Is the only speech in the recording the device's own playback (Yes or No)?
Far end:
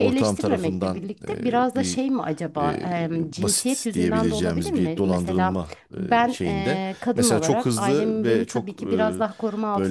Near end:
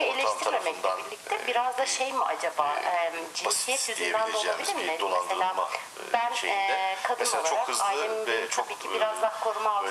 Yes